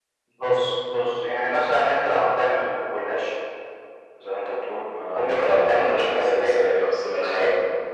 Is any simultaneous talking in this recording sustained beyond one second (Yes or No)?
Yes